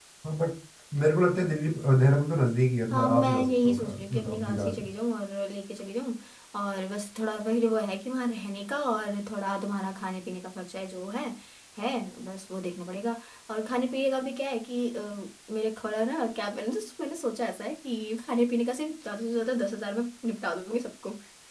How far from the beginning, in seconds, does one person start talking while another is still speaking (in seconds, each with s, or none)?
2.9 s